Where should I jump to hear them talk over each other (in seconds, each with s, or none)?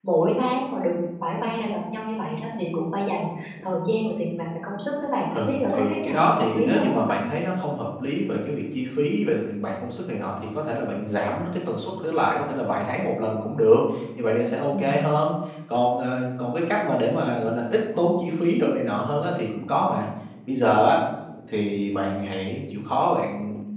5.3 s